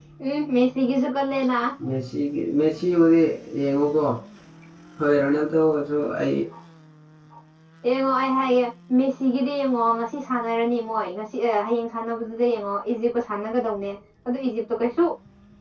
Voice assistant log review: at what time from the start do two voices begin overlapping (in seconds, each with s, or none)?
none